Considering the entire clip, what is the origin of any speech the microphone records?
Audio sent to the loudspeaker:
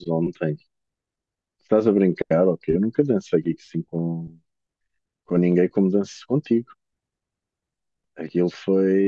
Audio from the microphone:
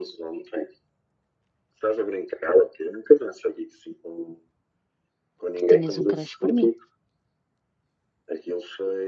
both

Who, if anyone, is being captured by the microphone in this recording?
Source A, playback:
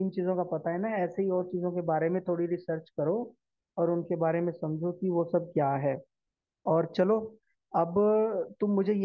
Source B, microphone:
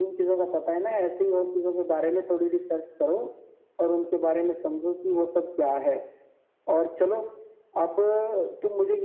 echo only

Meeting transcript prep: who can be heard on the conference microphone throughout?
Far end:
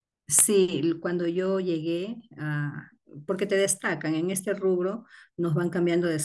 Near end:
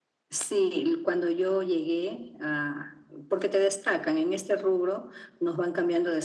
echo only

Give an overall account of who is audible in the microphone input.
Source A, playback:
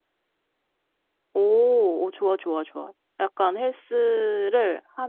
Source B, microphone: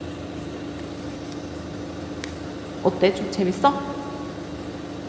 user only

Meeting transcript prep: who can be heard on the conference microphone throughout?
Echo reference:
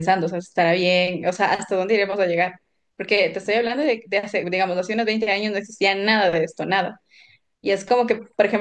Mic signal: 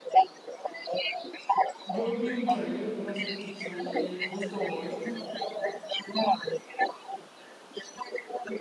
both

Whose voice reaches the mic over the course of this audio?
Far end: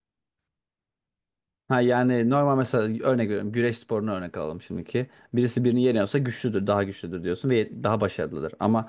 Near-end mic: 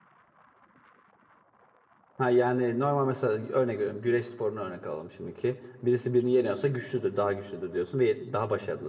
echo only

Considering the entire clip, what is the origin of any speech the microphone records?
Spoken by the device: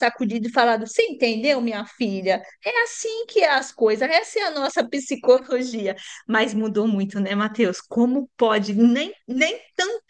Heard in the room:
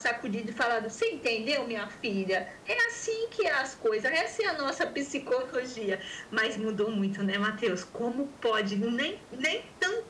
echo only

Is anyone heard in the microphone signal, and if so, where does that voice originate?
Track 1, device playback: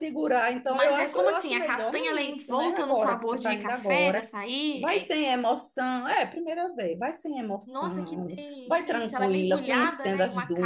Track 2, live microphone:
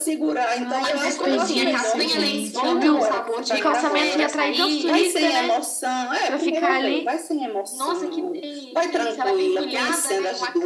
both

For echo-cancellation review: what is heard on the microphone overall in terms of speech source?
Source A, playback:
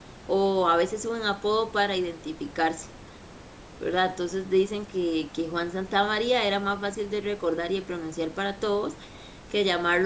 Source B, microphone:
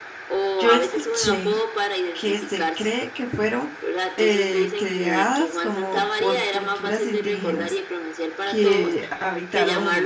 both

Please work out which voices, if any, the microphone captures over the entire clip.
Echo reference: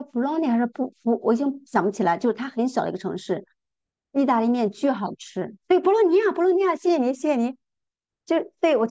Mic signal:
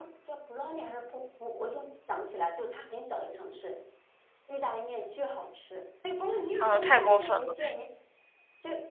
both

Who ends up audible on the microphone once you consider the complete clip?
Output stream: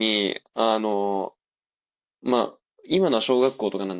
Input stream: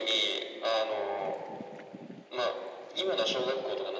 echo only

